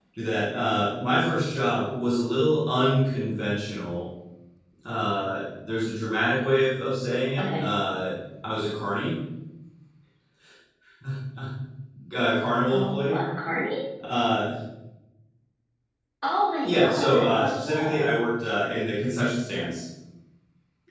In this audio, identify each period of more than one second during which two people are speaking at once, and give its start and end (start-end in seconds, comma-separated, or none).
16.6-18.1